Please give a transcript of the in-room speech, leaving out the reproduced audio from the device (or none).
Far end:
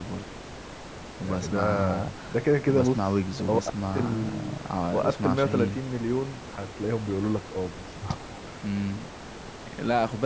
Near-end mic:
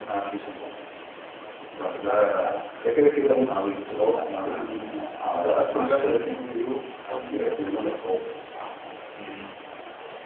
بس هو منير بس اللي وصله لنا يعني